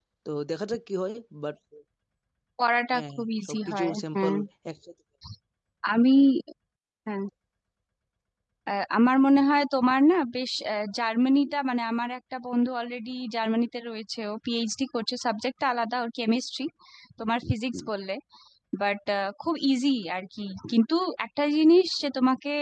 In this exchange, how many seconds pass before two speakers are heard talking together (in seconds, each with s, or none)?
2.9 s